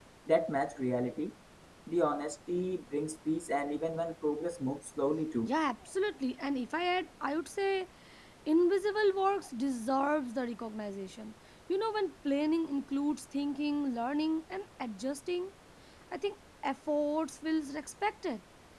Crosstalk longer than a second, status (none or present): none